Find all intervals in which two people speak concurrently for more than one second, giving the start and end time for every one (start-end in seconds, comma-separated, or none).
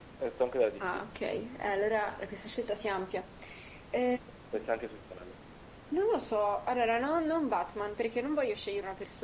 none